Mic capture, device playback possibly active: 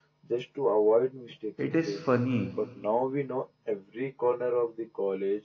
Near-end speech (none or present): present